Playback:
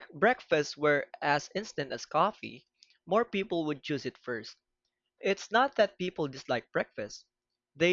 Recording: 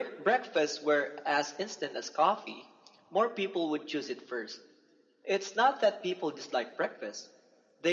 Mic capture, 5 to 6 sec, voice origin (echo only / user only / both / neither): echo only